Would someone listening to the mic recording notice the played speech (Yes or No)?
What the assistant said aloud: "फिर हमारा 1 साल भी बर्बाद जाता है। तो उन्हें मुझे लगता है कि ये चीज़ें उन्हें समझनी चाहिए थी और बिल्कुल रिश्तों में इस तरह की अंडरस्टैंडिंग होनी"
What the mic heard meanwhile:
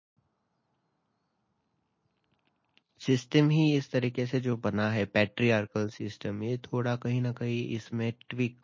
No